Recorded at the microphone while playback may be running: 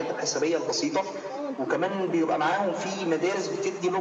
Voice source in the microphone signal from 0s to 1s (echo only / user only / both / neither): echo only